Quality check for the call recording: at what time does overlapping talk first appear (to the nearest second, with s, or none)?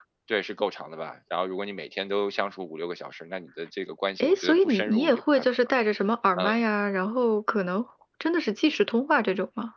4 s